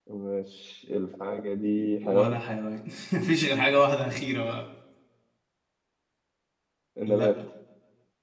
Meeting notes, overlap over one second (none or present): none